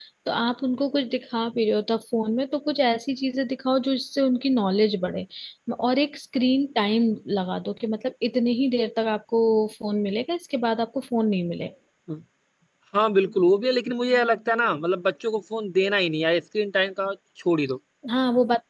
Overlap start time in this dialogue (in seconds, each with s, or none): none